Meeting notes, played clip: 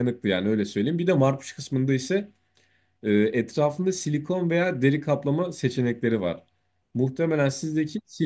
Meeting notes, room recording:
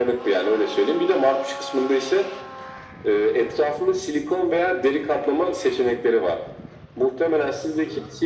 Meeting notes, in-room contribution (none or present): none